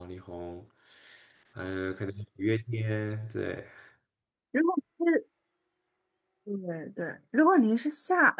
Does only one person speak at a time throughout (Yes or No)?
Yes